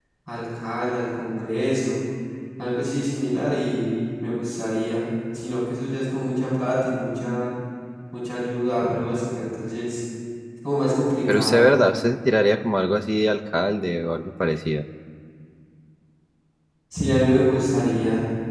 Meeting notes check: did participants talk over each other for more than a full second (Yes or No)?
No